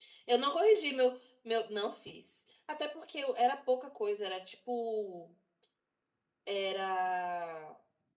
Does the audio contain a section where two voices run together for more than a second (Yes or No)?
No